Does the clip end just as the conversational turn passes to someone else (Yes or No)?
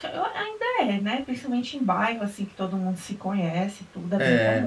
Yes